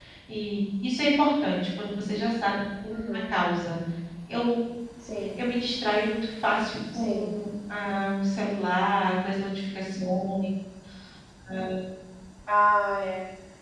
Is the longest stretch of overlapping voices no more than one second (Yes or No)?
Yes